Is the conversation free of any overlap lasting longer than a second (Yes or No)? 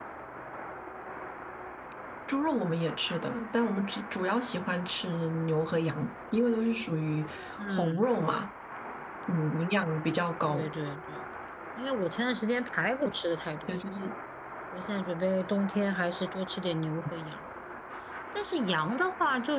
Yes